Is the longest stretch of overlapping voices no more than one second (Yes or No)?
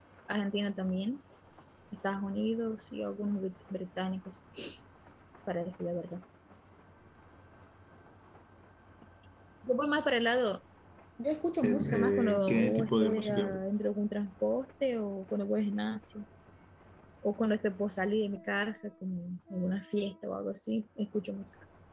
No